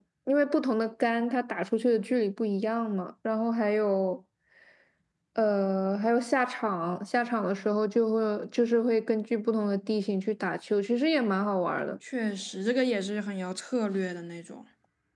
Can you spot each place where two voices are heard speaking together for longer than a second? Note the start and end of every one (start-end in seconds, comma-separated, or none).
none